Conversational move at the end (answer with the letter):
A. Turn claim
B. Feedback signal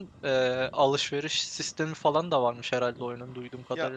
A